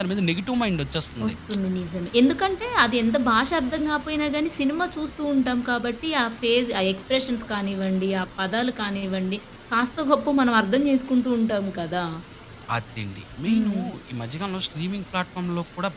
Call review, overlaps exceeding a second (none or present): none